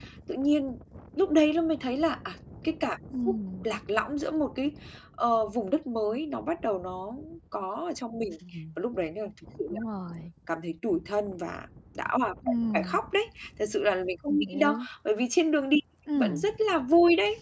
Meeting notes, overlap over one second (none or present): none